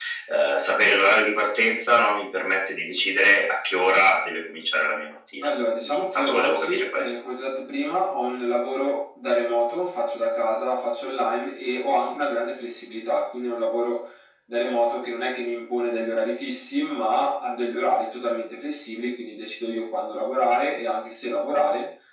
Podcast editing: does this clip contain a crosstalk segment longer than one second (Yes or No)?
Yes